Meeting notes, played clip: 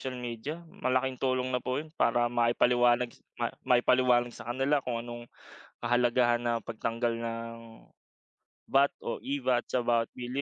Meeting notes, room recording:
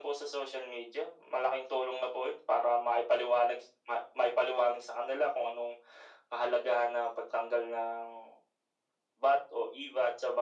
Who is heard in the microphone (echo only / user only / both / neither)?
echo only